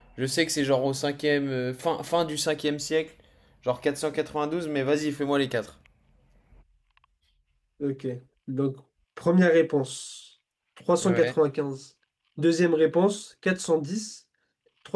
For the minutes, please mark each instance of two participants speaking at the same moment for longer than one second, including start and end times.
none

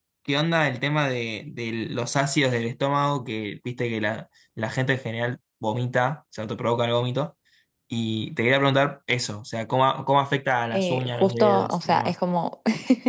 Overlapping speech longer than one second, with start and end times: 10.7-12.2

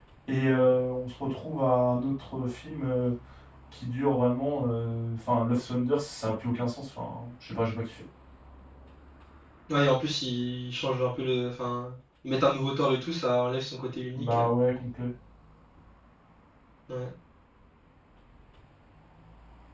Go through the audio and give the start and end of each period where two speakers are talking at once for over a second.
none

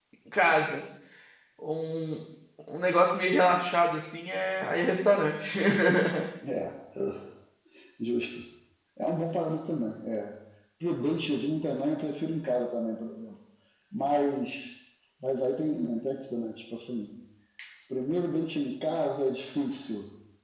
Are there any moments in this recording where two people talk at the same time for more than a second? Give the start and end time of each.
none

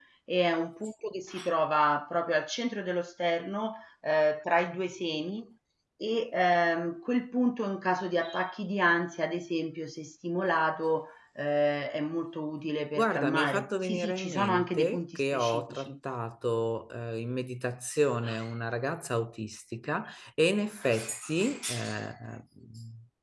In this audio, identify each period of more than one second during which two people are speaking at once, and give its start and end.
13.0-15.9

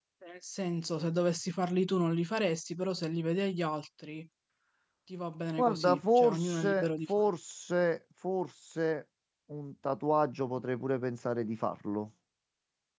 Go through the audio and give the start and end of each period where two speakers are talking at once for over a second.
5.6-7.3

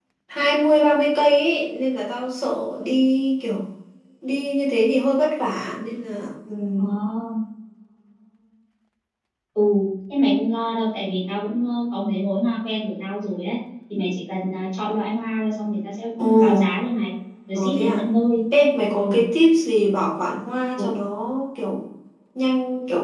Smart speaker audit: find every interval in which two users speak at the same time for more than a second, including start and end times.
none

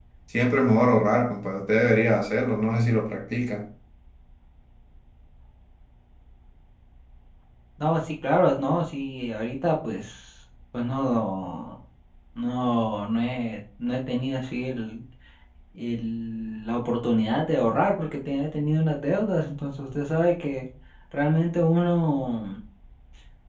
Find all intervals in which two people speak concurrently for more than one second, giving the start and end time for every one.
none

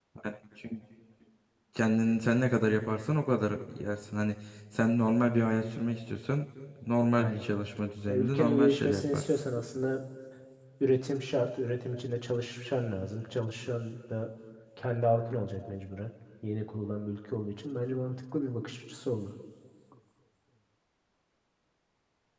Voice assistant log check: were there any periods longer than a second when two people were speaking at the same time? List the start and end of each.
8.1-9.4

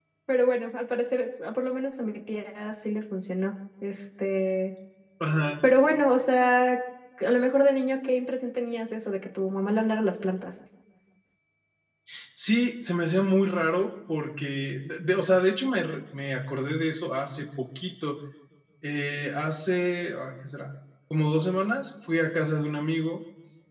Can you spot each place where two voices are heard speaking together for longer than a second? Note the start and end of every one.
none

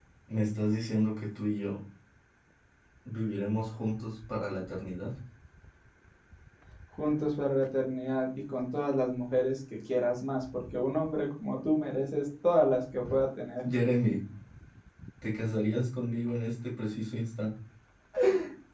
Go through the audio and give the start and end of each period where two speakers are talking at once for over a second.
none

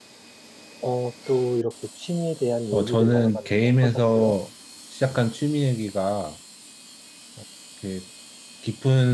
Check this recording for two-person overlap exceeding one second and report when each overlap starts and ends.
2.7-4.3

